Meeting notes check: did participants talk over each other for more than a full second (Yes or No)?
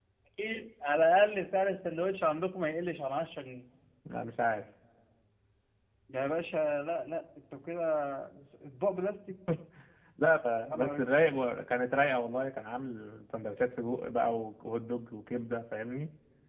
No